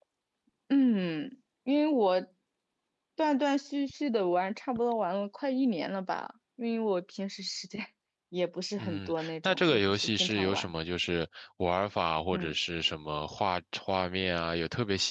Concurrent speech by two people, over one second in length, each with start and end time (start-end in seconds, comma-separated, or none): 8.8-10.7